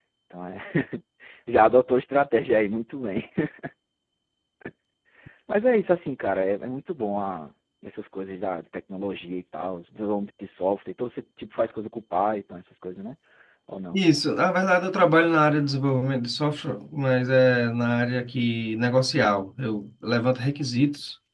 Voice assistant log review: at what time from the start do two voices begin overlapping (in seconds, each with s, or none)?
none